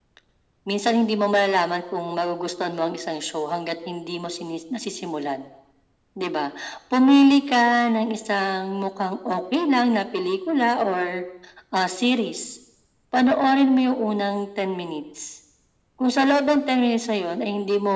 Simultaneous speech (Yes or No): No